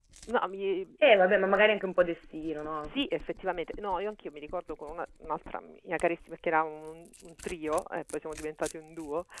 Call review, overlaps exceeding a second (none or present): none